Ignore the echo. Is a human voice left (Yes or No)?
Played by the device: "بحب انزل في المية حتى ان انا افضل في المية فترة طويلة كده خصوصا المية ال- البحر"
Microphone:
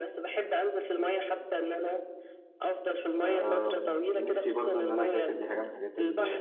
Yes